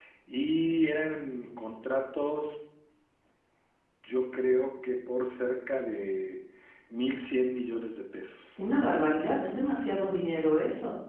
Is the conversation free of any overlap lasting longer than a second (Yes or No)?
Yes